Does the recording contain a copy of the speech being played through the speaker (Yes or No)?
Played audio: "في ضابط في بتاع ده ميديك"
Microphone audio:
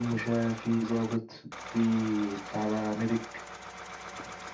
Yes